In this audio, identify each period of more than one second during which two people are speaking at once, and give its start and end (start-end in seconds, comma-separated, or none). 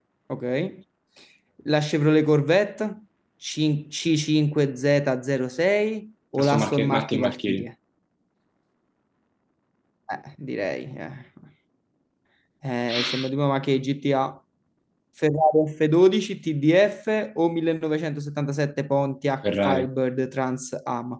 6.4-7.6